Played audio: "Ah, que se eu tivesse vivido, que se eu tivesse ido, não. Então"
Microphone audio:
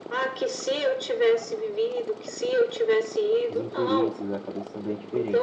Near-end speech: present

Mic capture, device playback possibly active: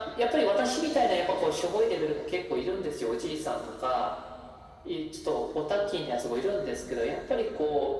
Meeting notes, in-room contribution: none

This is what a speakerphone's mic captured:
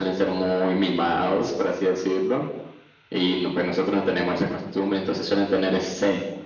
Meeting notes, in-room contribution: none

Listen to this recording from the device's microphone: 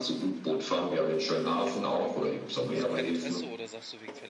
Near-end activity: present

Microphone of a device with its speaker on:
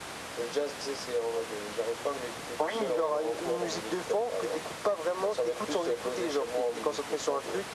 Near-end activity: none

